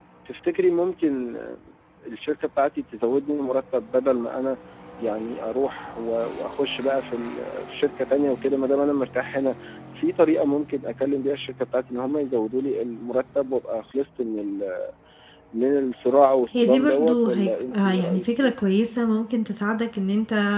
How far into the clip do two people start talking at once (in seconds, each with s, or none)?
16.5 s